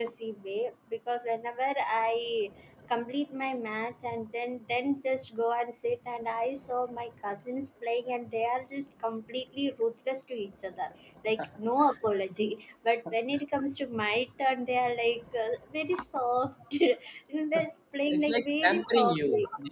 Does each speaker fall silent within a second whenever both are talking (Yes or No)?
No